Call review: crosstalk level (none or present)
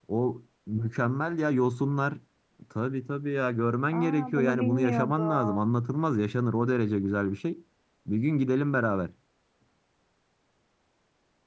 present